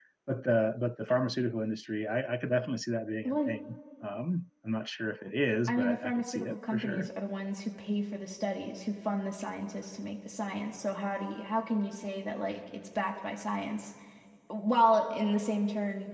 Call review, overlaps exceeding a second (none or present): present